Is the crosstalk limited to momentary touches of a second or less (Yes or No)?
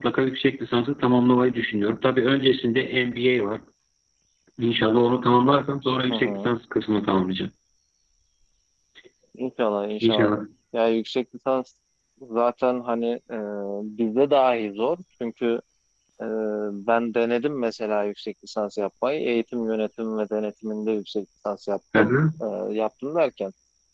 Yes